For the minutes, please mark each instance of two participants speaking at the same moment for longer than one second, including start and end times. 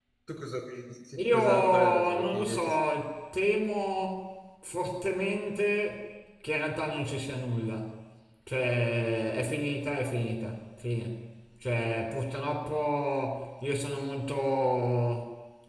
1.2-2.7

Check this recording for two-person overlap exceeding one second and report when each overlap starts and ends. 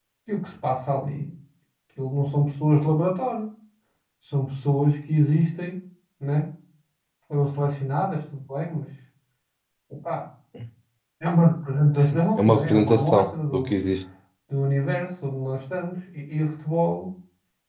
12.4-13.8

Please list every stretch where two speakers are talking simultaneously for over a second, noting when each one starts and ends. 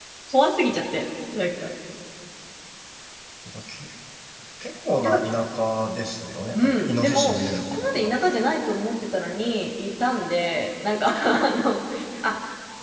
6.5-8.1

